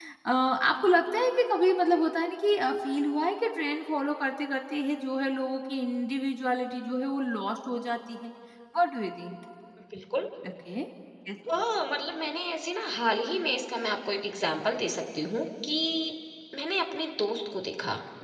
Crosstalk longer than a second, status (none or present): none